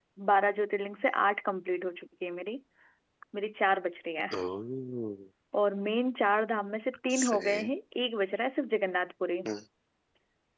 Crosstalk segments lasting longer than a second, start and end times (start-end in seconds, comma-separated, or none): none